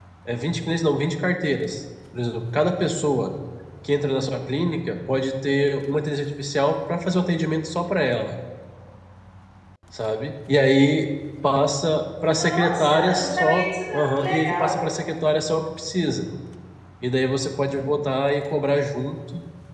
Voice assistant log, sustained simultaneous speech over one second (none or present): present